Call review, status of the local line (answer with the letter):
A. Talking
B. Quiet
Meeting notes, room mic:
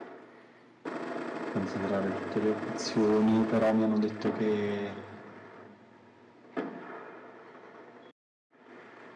A